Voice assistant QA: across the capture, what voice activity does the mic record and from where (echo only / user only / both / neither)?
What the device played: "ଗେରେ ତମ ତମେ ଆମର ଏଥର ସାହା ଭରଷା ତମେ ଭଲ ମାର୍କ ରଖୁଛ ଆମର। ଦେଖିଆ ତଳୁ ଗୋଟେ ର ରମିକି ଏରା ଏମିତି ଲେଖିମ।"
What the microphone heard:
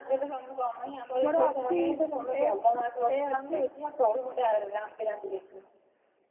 both